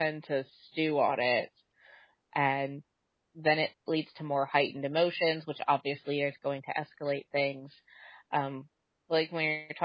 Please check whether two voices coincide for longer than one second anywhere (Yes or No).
No